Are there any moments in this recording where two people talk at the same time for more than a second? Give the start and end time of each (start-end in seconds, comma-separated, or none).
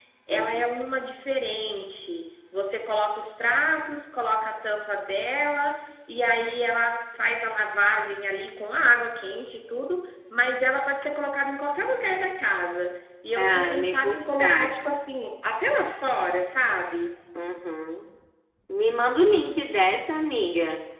13.4-15.0